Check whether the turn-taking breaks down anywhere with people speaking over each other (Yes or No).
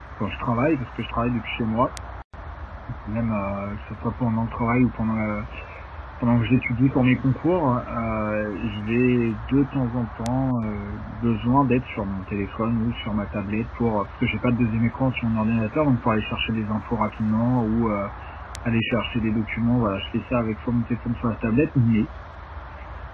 No